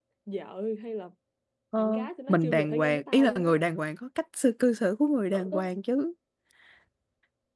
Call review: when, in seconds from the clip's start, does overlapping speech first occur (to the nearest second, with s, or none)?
2 s